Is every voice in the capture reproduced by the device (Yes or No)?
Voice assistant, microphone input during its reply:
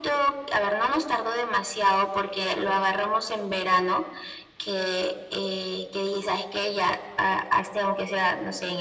Yes